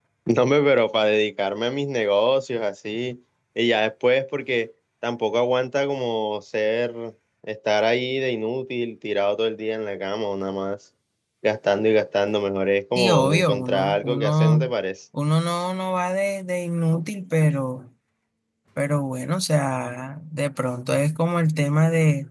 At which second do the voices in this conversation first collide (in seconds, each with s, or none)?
12.9 s